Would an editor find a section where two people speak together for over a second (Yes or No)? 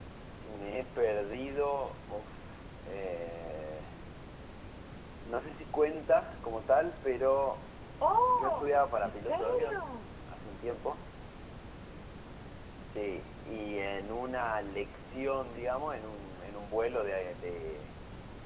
Yes